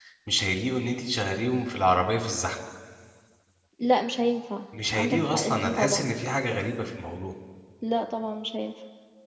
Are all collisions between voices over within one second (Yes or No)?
No